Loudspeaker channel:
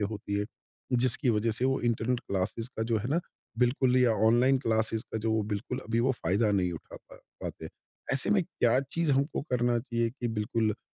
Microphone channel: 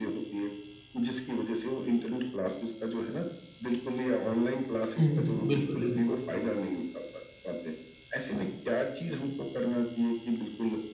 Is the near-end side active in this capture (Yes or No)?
Yes